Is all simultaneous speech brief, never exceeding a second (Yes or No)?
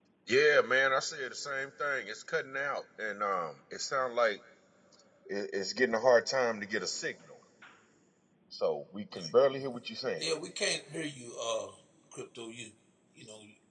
Yes